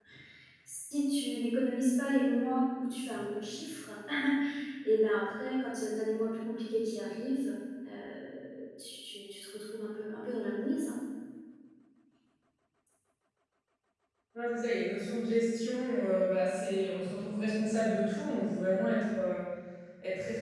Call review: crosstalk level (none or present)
none